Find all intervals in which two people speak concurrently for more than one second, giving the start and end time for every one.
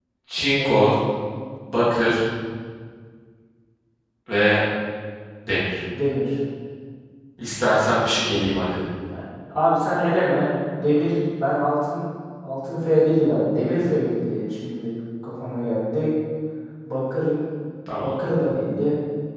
none

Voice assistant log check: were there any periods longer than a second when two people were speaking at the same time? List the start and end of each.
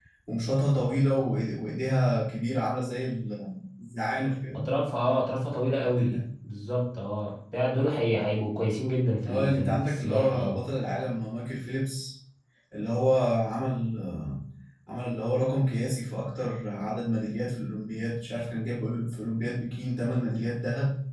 9.3-10.6

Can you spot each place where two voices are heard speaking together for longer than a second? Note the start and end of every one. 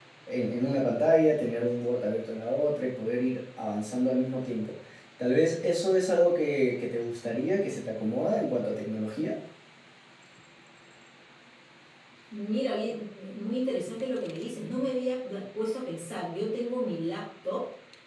none

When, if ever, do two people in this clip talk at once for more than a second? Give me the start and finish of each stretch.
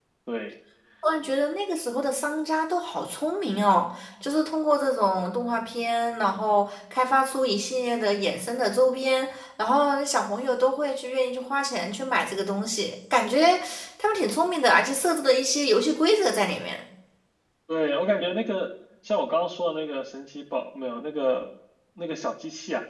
none

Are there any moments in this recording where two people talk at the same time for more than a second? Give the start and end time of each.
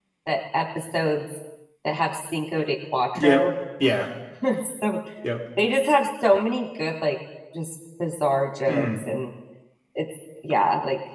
none

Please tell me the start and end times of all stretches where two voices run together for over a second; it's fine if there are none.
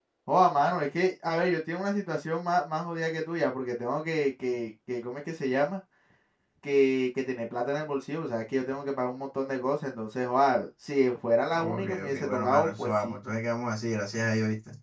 11.5-13.2

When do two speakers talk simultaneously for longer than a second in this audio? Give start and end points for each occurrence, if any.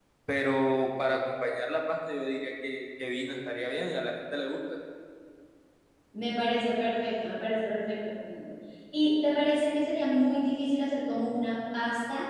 none

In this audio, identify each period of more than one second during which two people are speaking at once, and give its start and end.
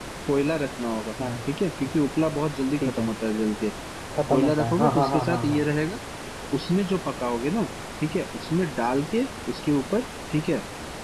4.3-5.6

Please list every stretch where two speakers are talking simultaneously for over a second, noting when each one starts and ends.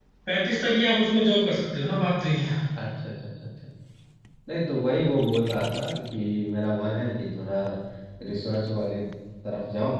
none

